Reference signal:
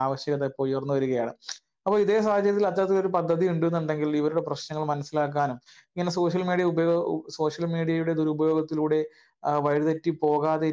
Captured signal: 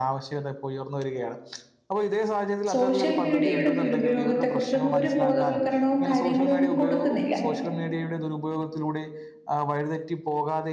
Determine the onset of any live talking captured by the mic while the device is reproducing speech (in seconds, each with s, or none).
2.7 s